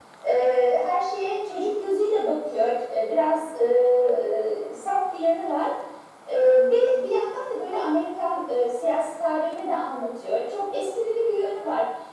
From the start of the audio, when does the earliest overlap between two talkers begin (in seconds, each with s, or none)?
none